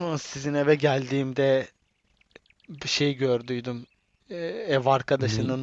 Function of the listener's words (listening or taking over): listening